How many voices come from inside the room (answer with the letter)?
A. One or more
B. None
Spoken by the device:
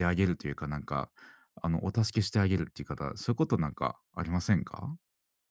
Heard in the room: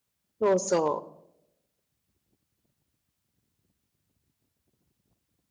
A